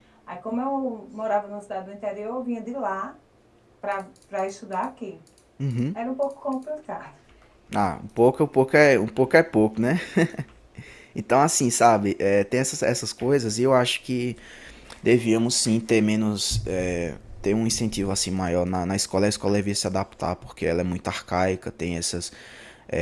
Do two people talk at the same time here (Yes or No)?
No